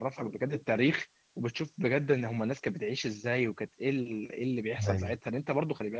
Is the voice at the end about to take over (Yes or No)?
No